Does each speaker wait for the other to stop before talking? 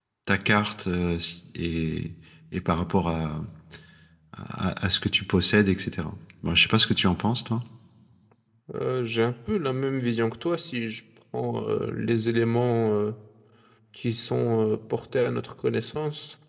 Yes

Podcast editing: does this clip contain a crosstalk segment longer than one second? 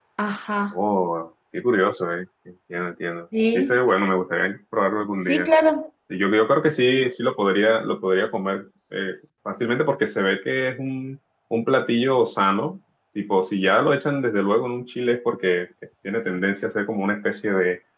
No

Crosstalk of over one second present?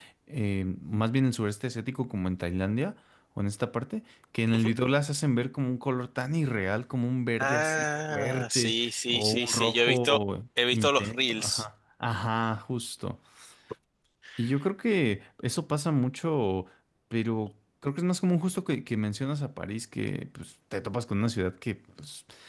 Yes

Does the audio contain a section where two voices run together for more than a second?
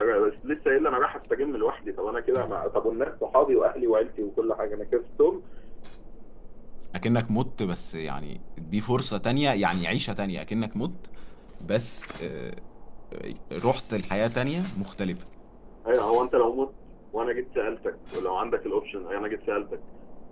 No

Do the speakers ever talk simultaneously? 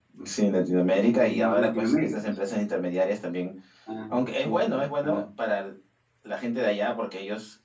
Yes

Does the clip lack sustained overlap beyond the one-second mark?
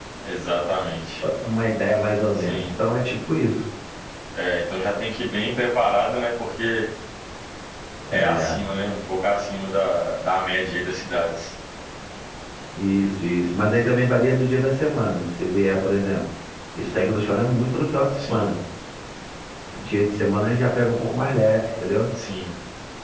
Yes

